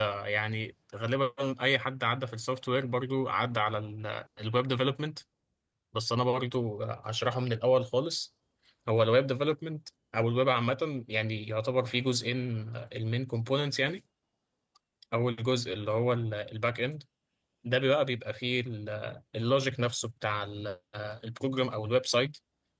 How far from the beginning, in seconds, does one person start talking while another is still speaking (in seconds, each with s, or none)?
none